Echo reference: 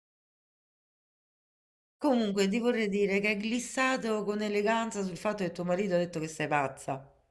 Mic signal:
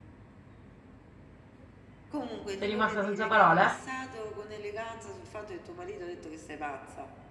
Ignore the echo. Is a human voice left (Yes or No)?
Yes